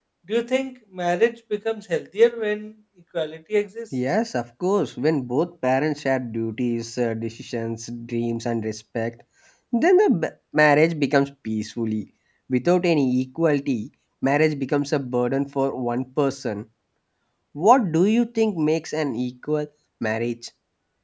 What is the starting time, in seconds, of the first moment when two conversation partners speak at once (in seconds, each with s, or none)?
none